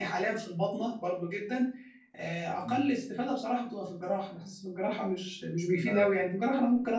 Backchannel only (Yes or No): Yes